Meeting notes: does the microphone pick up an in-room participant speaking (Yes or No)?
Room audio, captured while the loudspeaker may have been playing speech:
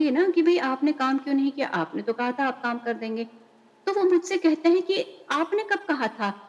No